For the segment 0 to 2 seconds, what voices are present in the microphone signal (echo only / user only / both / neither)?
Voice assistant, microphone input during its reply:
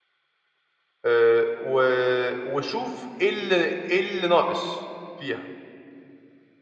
user only